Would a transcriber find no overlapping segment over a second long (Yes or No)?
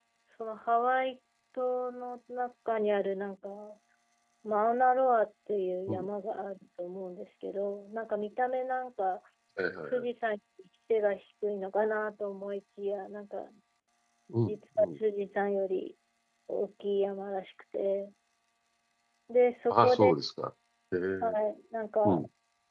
Yes